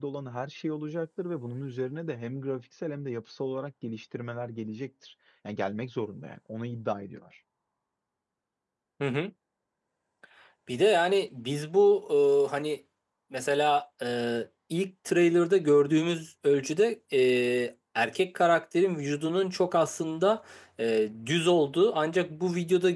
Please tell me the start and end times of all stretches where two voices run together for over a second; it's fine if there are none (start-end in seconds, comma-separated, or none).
none